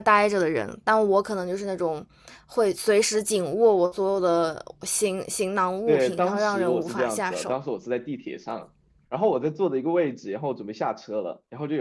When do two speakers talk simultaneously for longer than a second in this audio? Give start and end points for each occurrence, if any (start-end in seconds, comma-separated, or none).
5.9-7.5